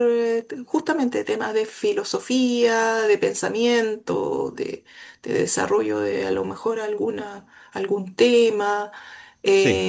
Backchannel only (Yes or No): Yes